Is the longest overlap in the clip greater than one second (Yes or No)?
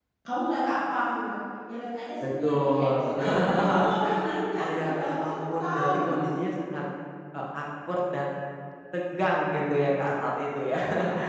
Yes